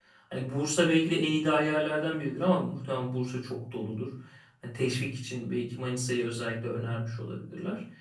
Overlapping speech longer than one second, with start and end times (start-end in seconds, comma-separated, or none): none